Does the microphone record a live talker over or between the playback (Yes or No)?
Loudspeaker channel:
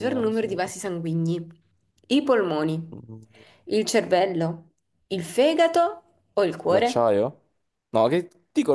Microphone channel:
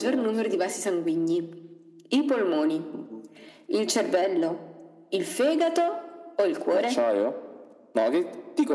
No